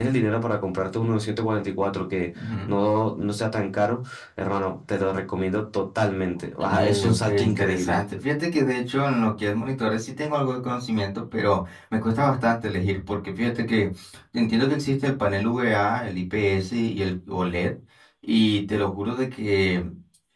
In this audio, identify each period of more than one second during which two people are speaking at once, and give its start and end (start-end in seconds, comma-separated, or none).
6.6-8.1